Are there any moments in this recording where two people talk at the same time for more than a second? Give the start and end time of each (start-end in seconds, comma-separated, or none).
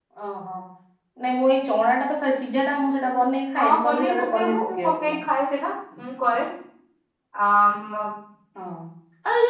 3.6-5.1